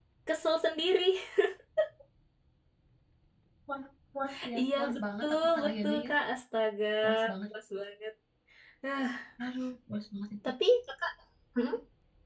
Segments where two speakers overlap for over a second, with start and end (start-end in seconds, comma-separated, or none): 4.6-6.1